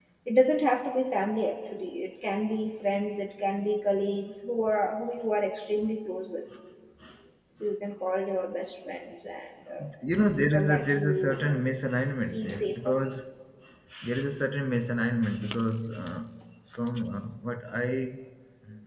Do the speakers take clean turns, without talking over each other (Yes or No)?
No